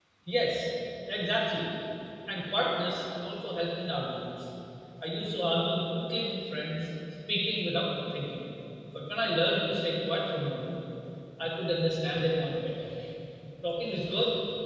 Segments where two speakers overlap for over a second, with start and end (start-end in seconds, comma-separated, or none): none